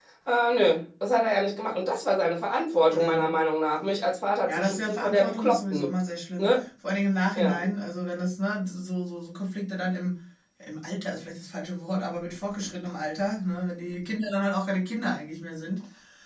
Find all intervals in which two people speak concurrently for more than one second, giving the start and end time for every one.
4.5-5.9

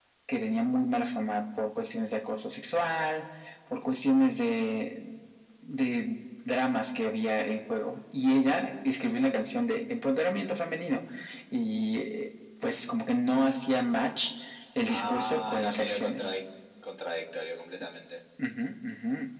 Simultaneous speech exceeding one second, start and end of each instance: 14.9-16.3

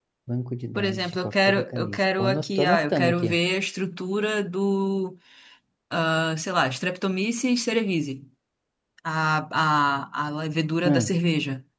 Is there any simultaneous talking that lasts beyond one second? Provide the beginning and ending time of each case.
0.8-3.3

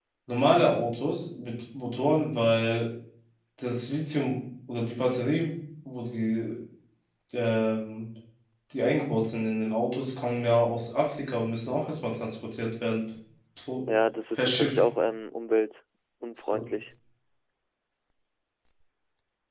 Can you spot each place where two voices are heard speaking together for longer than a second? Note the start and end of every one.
none

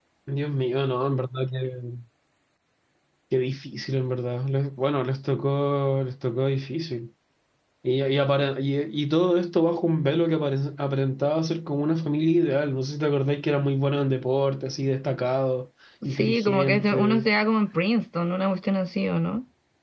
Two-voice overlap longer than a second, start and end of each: 16.1-17.3

